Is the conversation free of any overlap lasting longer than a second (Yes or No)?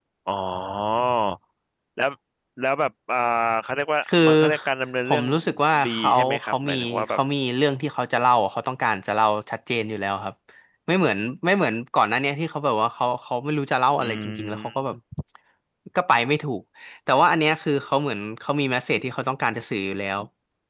No